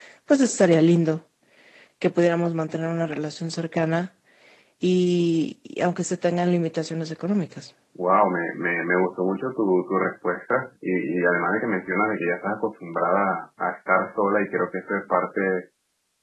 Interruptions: none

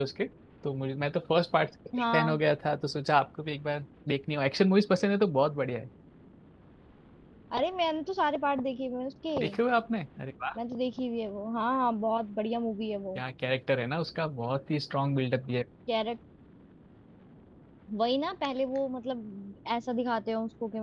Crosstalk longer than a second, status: none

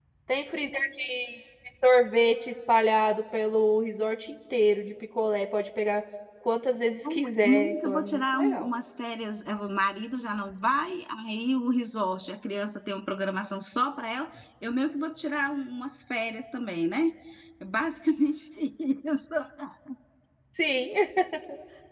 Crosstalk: present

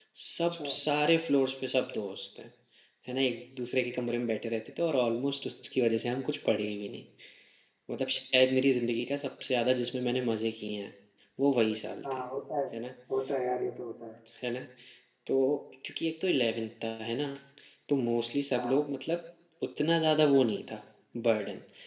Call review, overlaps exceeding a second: none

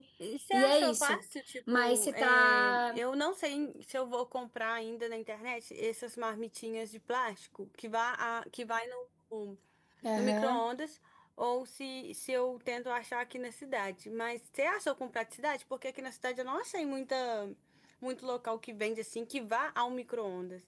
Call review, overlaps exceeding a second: present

